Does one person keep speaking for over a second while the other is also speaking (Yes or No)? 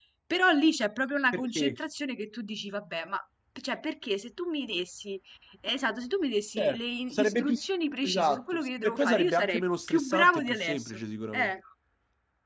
Yes